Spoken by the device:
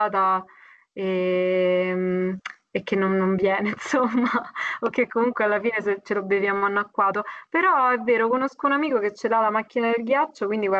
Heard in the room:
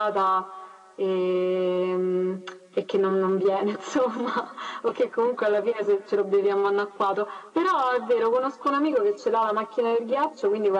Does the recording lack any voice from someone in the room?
Yes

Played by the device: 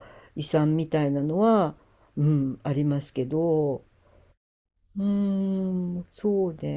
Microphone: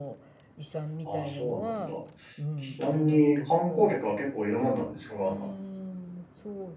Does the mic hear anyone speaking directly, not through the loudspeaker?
Yes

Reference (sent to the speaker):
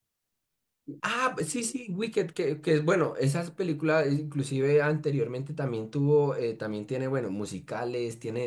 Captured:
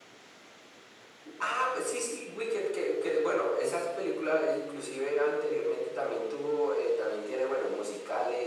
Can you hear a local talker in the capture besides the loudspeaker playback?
No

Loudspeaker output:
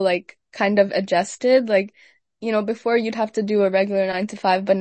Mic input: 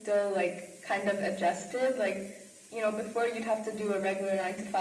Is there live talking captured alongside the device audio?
No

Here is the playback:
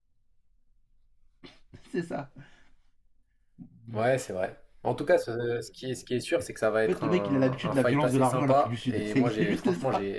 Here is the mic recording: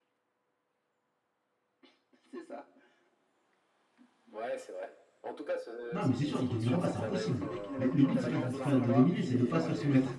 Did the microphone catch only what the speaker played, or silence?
No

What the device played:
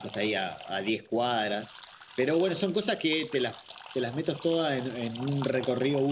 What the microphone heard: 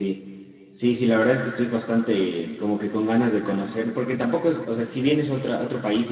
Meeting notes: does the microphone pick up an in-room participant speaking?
Yes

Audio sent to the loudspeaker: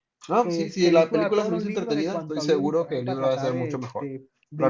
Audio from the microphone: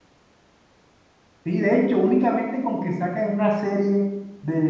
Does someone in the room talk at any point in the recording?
Yes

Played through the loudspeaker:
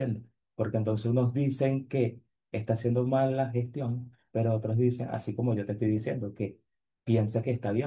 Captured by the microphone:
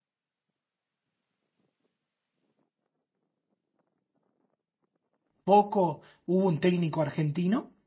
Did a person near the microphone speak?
Yes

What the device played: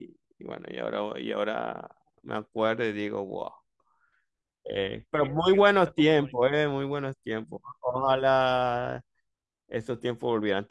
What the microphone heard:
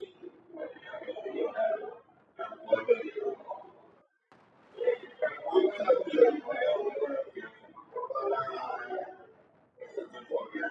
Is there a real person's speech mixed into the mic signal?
No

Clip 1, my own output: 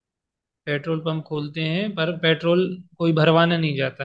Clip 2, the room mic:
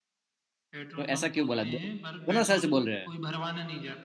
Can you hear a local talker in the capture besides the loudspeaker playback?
Yes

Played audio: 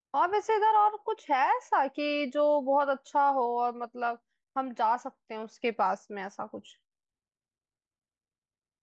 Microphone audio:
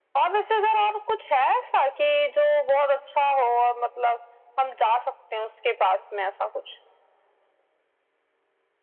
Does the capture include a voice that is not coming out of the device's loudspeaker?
No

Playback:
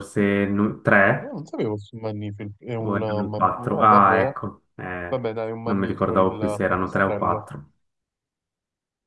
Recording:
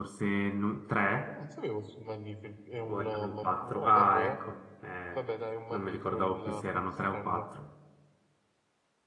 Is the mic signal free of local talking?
Yes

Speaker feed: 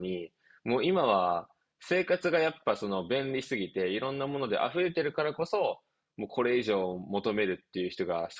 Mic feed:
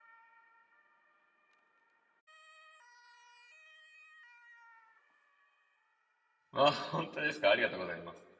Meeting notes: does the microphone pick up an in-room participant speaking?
Yes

